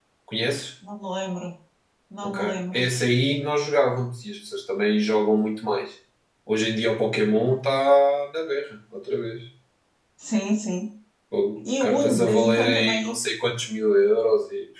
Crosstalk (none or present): present